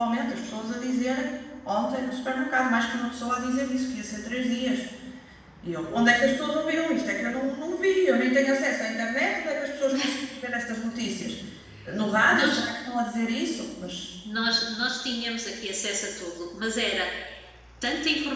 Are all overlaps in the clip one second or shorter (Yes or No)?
Yes